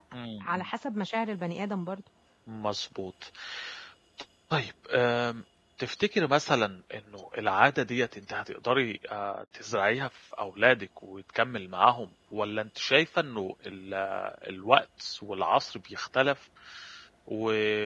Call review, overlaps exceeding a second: none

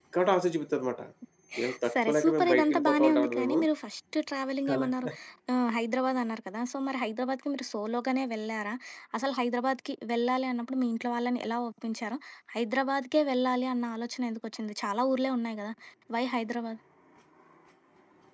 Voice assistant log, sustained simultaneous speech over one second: present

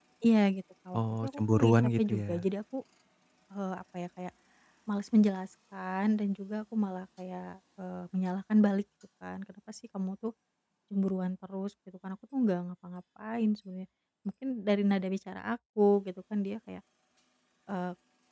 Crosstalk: present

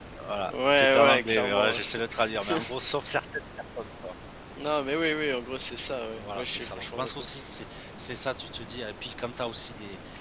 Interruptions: present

